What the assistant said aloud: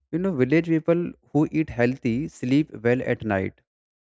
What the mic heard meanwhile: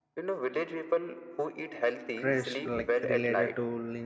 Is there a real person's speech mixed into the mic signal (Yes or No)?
Yes